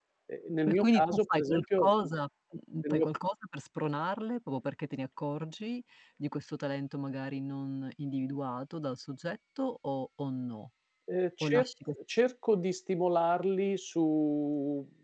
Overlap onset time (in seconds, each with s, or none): 0.7 s